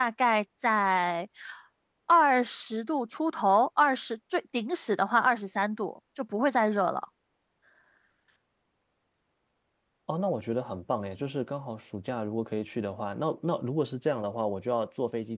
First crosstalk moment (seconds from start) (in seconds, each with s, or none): none